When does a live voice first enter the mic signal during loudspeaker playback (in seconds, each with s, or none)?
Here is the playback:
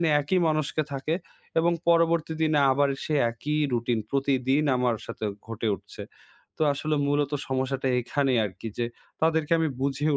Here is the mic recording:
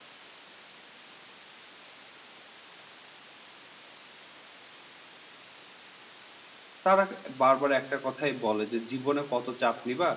6.8 s